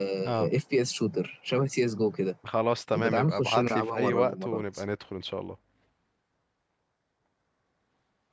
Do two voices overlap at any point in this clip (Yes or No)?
Yes